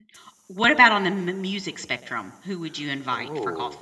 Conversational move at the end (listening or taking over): taking over